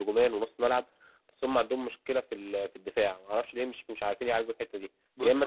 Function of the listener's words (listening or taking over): listening